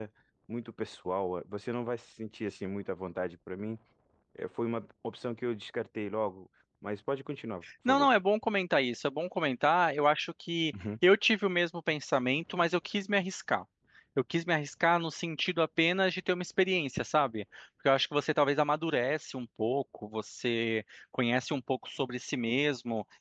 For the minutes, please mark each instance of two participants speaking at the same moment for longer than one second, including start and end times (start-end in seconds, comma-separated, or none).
none